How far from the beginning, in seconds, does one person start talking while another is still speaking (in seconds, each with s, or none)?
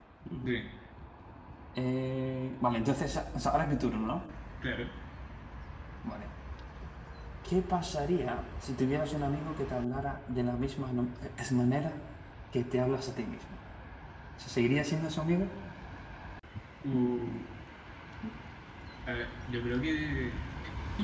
none